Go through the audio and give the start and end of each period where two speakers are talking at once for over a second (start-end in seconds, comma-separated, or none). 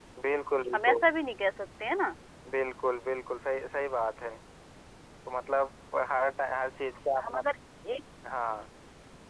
none